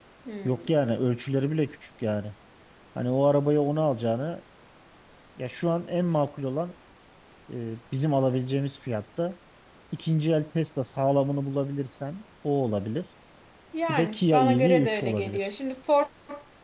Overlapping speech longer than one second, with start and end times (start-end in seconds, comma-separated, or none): 13.9-15.5